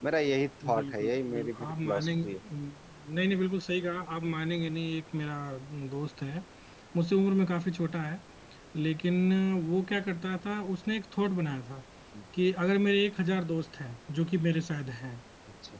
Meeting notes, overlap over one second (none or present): present